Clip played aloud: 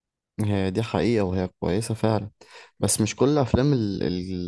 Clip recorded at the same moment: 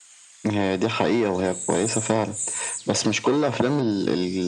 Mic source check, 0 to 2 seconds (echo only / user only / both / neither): echo only